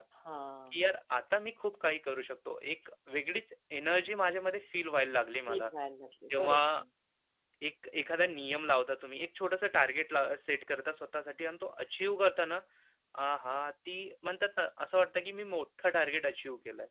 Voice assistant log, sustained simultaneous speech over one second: none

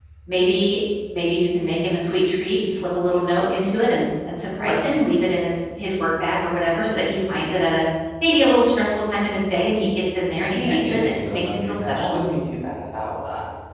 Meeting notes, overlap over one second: present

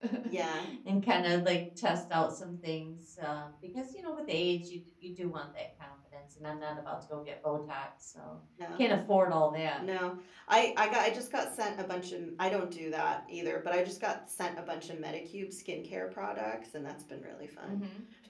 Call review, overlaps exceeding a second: none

